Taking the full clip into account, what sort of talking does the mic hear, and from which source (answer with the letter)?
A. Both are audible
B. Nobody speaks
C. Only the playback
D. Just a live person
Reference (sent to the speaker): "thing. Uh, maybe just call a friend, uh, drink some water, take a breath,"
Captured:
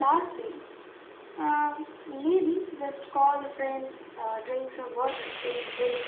C